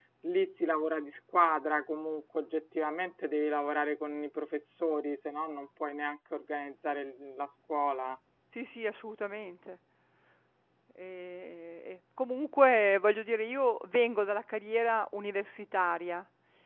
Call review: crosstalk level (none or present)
none